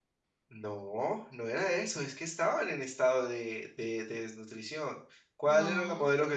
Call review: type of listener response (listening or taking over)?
listening